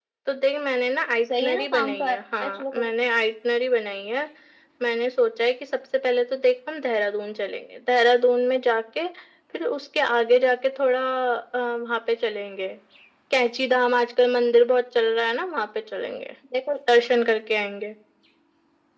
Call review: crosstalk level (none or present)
present